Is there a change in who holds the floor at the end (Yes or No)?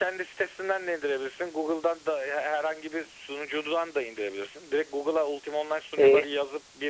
No